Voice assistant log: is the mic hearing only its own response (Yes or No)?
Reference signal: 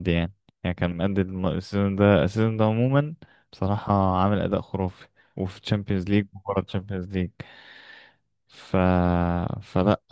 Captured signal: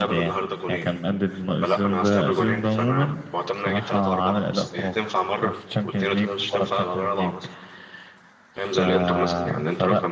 No